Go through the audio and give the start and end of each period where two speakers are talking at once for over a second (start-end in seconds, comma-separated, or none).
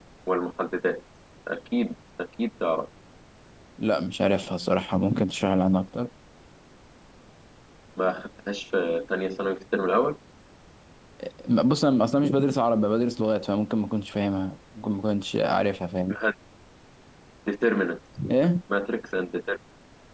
none